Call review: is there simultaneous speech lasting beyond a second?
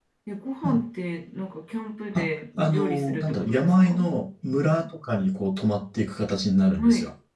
Yes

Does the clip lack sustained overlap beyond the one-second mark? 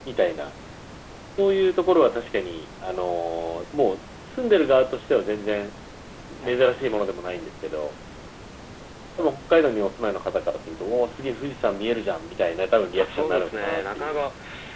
No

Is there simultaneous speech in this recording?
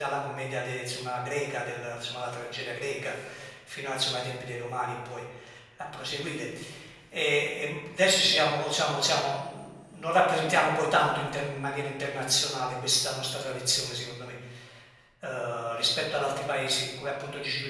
No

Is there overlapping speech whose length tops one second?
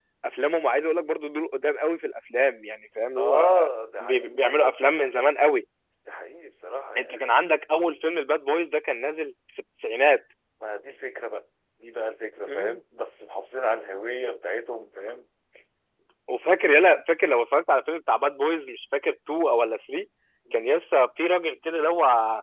No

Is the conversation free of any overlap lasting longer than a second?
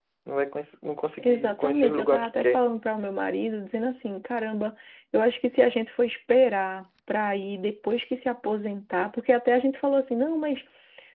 No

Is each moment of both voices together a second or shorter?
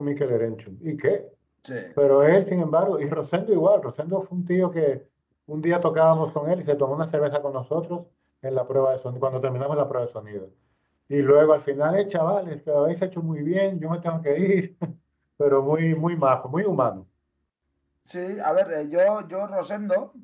Yes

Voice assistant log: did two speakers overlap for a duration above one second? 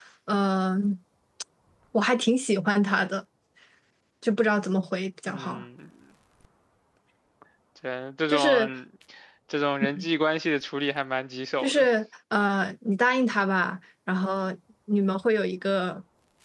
No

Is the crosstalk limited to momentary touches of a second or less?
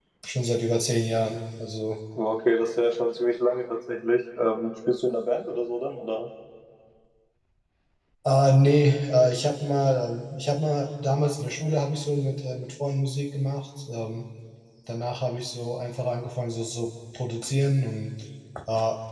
Yes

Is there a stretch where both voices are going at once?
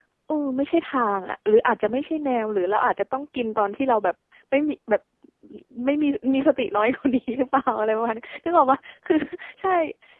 No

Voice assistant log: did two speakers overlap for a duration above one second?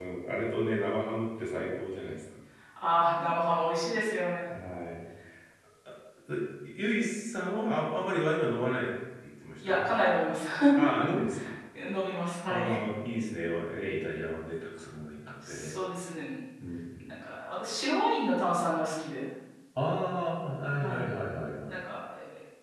No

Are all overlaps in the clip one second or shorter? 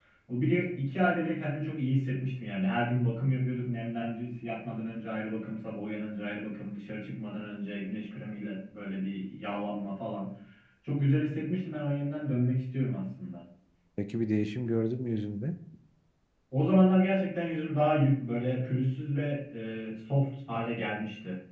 Yes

